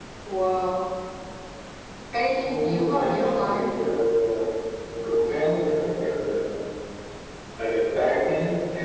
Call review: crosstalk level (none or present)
present